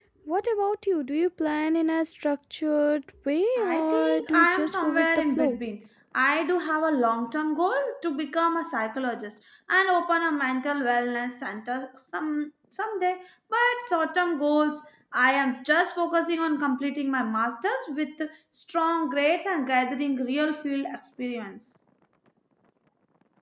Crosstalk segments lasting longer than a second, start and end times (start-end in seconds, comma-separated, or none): 3.6-5.6